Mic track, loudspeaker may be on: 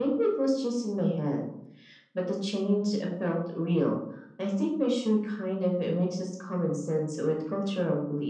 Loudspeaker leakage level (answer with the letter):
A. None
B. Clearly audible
B